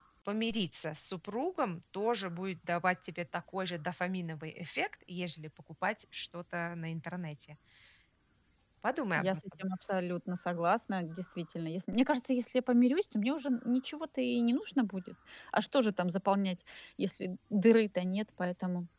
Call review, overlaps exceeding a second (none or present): none